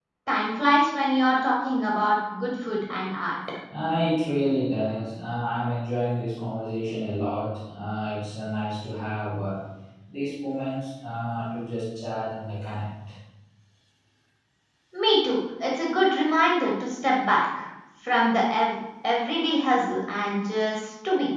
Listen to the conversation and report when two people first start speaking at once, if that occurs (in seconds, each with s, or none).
none